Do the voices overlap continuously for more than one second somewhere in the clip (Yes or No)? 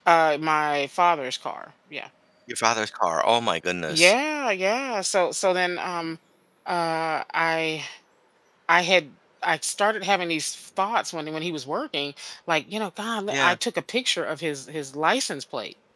No